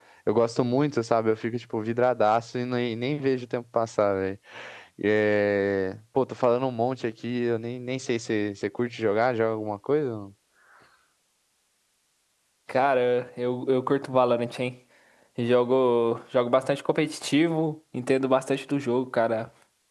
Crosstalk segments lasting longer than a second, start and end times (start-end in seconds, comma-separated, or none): none